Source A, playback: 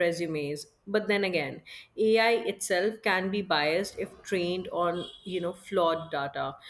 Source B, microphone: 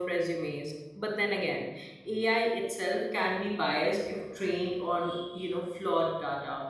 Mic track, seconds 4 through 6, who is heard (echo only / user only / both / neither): echo only